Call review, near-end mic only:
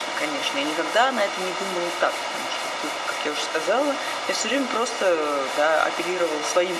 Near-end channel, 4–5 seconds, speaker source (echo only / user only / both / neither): echo only